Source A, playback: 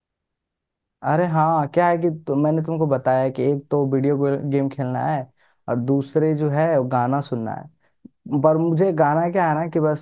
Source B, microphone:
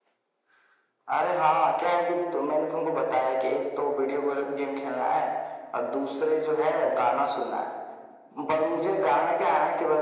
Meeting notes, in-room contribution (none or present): none